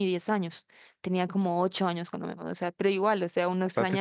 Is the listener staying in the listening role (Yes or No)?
Yes